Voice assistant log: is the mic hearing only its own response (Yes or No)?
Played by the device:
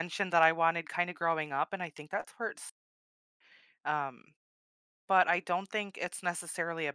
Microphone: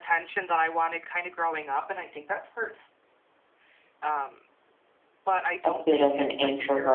No